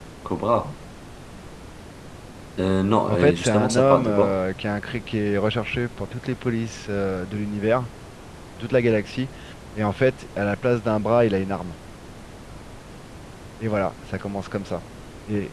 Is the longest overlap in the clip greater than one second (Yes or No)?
Yes